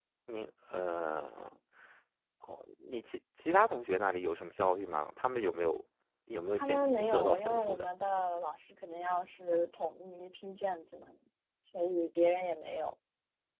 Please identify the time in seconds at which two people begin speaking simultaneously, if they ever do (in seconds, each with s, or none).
6.5 s